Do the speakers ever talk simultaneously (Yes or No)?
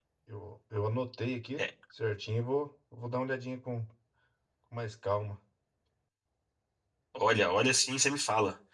No